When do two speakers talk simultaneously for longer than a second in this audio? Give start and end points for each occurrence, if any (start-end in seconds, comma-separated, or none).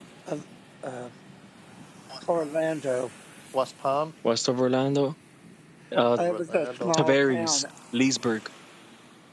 6.0-7.6